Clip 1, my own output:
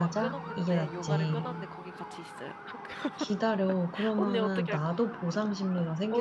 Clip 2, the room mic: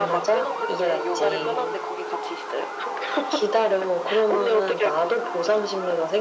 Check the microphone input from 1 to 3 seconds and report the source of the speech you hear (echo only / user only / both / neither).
echo only